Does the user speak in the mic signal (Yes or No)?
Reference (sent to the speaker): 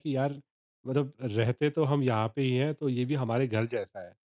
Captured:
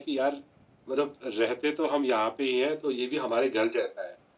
No